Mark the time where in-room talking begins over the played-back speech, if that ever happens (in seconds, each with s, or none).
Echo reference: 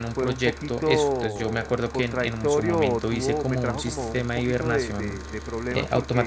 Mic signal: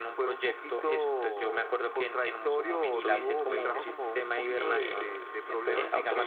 2.9 s